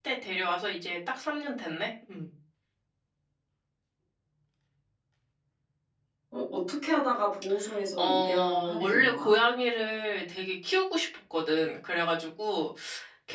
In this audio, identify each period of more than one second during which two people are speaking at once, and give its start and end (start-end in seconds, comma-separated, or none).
8.0-9.3